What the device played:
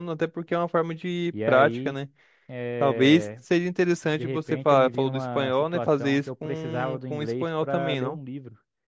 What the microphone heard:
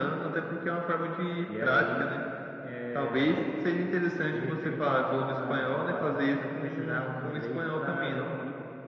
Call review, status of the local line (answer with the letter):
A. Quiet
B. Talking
A